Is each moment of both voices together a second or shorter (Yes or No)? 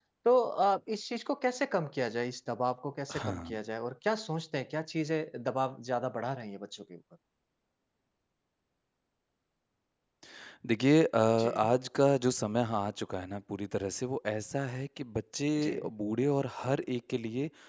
Yes